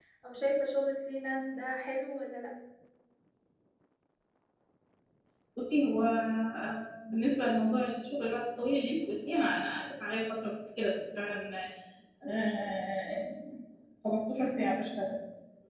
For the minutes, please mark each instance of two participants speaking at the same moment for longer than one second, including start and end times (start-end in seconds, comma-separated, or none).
none